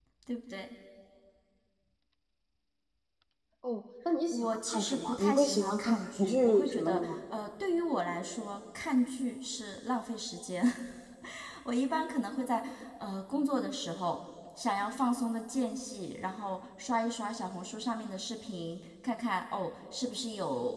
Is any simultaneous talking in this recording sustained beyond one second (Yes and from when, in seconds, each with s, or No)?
Yes, from 4.3 s